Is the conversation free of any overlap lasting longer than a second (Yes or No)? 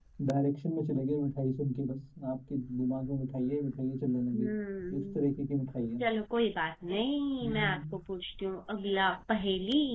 Yes